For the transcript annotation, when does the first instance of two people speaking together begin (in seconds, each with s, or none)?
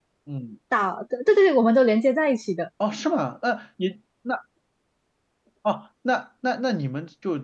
none